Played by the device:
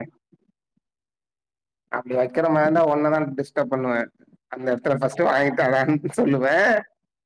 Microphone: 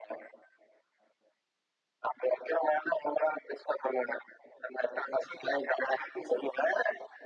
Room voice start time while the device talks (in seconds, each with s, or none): none